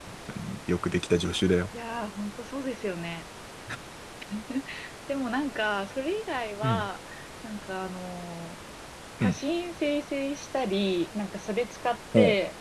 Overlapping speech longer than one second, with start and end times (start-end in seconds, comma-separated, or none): none